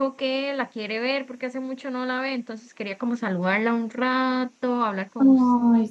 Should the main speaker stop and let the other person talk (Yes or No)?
Yes